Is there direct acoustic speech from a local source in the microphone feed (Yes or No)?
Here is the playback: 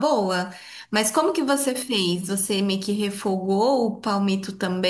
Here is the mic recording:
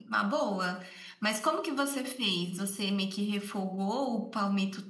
No